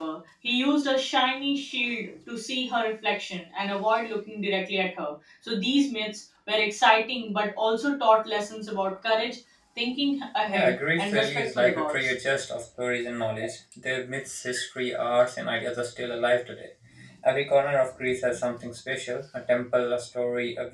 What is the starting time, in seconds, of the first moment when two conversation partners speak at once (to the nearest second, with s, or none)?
10 s